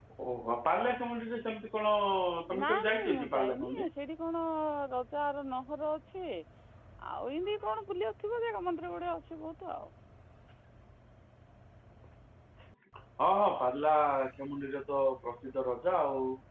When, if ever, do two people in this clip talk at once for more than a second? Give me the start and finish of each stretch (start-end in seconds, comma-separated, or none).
2.6-3.8